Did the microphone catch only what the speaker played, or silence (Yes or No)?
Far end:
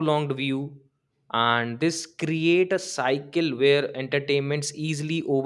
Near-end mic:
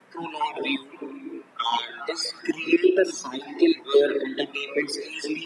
Yes